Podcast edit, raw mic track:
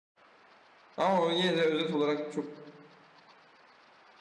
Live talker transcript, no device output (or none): Ama o yine de özet olarak çok